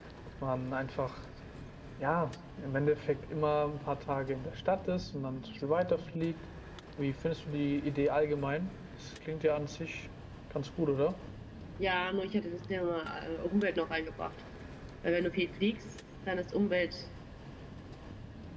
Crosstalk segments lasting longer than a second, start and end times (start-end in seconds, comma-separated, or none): none